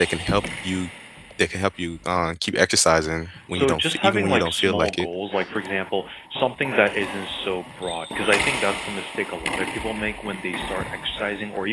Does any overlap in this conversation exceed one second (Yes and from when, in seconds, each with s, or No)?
Yes, from 3.3 s